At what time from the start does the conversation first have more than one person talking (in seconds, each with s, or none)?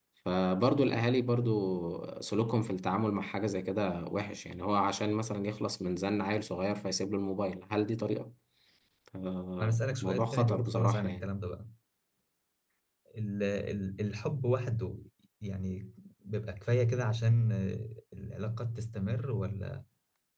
9.6 s